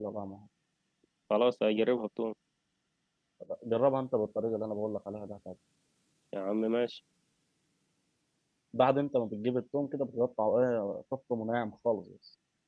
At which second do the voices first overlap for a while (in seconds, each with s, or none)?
none